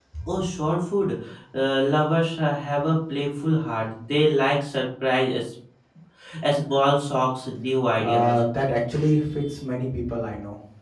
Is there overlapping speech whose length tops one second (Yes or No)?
No